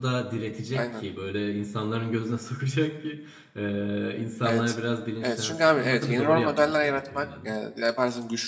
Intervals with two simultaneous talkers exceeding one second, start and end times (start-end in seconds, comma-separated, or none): 5.2-7.5